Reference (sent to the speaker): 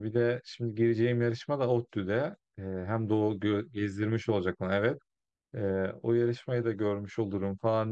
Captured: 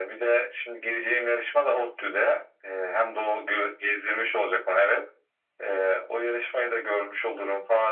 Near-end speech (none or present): none